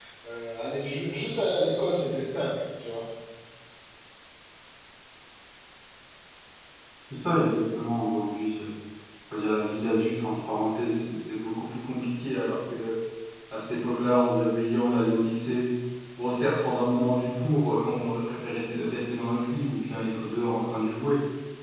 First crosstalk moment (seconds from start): none

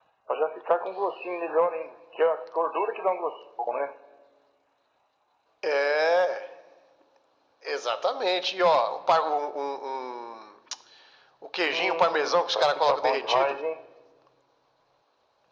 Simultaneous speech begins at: 11.6 s

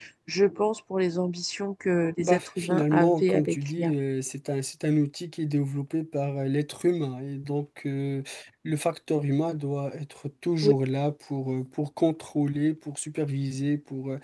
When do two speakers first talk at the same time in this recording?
2.2 s

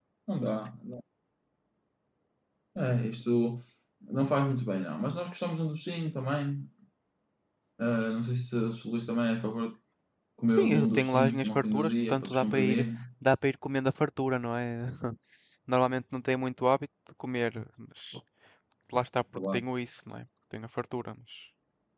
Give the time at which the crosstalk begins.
10.5 s

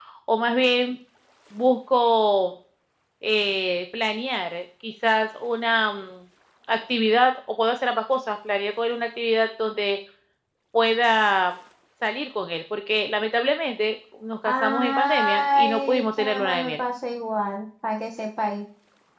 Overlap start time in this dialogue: 14.4 s

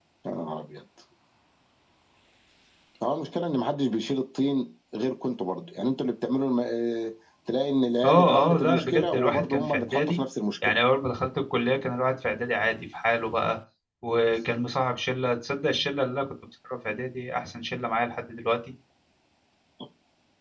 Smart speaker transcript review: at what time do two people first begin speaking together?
8.0 s

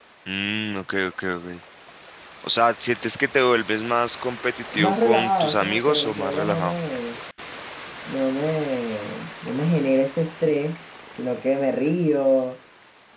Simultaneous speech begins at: 4.7 s

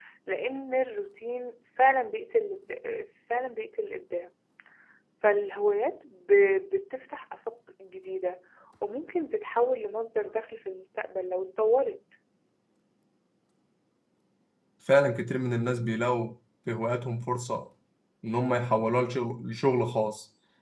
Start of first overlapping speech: none

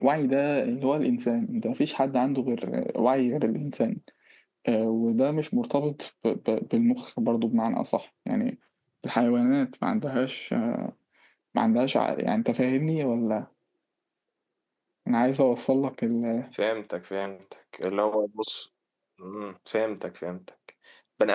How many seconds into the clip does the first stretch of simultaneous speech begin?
none

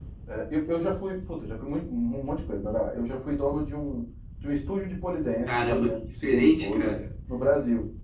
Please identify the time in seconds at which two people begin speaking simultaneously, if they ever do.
5.5 s

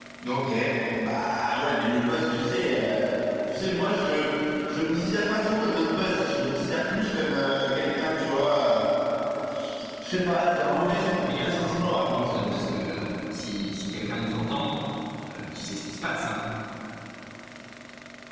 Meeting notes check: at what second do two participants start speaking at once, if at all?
10.8 s

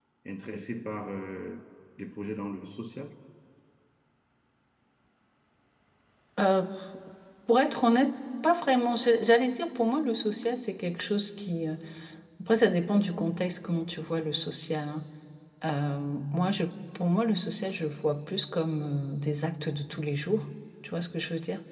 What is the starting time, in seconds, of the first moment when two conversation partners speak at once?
none

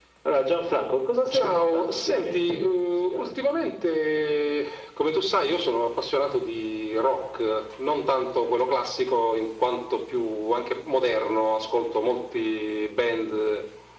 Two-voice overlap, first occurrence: 1.3 s

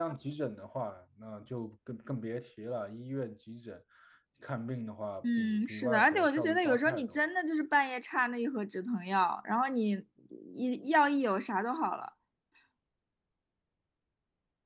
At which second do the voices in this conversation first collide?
5.2 s

